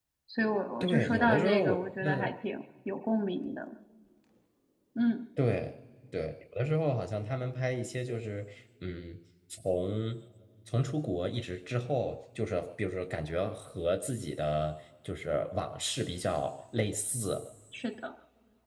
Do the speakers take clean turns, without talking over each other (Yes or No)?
No